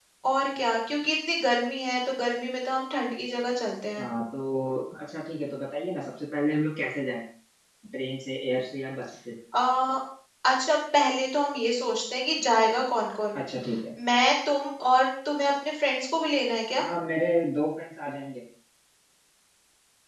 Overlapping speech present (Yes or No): No